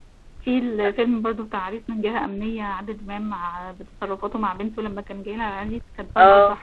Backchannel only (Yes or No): Yes